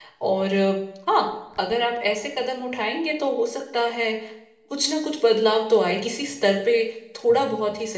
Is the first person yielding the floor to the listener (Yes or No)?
No